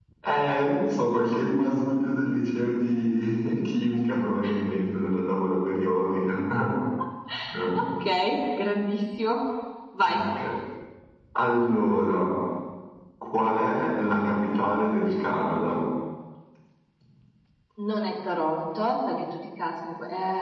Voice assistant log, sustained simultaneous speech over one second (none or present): none